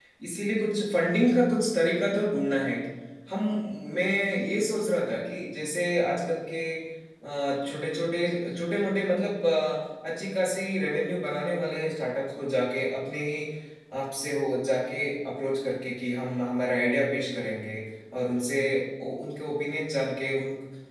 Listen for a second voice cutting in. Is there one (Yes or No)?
No